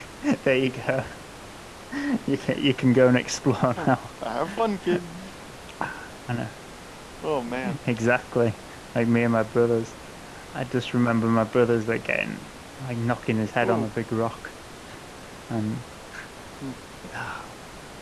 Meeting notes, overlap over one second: none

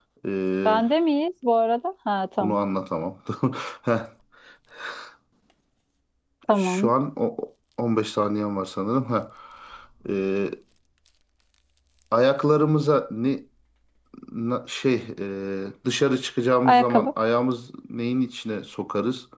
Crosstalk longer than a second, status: none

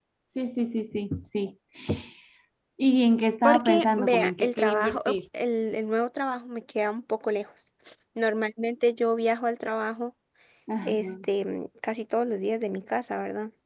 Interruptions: present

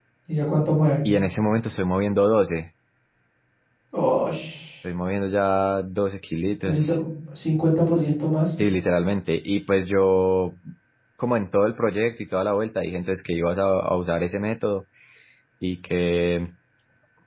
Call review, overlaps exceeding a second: none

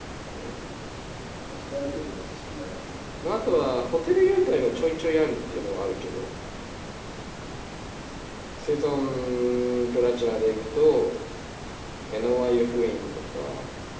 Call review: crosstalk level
none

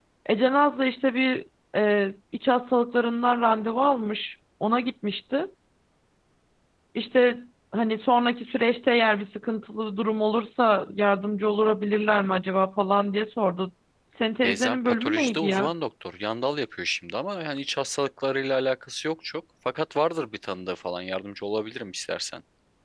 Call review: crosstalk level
present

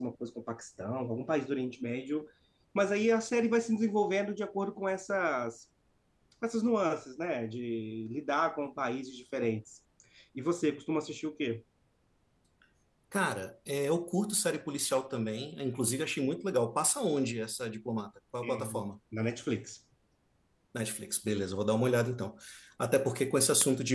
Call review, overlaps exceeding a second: none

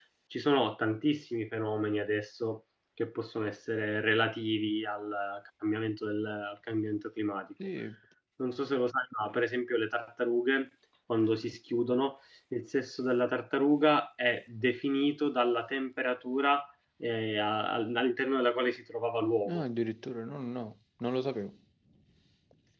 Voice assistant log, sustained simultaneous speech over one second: none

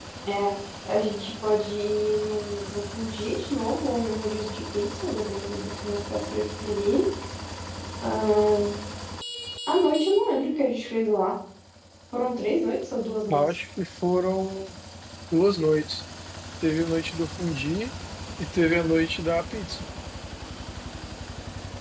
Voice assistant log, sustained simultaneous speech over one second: none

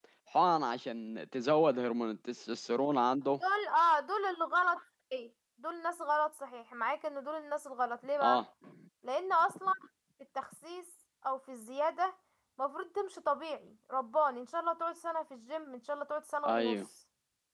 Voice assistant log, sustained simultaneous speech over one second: none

